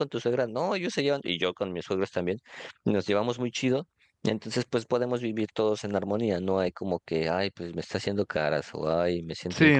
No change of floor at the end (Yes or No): No